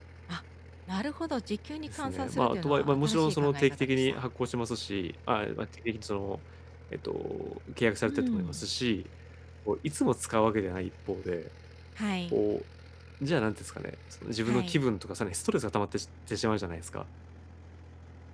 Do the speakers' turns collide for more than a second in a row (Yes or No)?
Yes